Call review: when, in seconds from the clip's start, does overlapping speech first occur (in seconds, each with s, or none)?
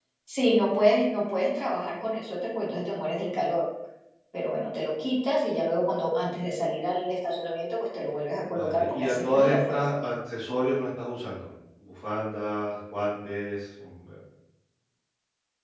8.5 s